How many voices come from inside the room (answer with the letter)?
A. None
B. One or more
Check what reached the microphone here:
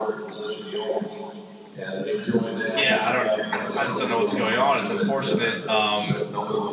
B